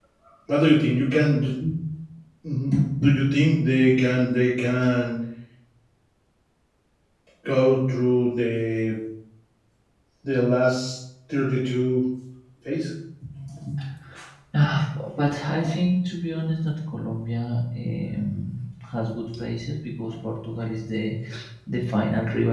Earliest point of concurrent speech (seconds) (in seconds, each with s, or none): none